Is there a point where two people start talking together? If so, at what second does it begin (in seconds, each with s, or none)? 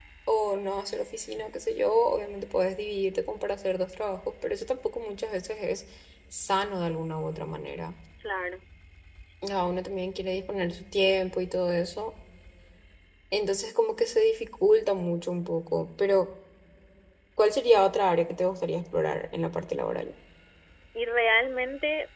none